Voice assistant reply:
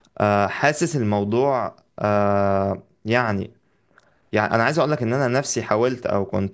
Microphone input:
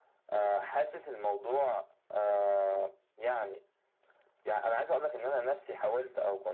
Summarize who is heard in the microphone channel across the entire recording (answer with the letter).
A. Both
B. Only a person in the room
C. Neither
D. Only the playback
D